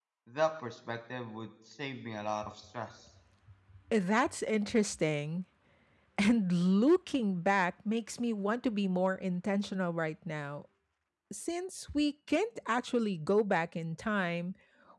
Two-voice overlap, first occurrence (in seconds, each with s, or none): none